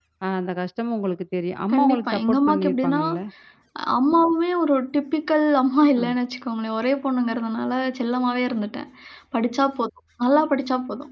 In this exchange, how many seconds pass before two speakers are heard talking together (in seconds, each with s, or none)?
1.7 s